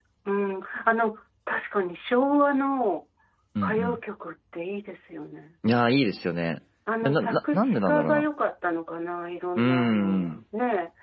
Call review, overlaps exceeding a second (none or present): present